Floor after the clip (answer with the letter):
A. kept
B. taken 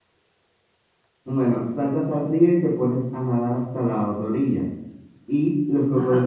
A